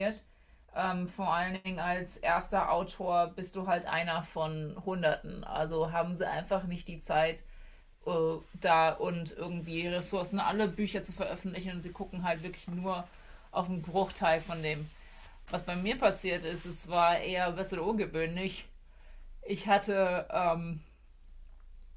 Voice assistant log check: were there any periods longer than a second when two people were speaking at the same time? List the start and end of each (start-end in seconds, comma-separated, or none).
none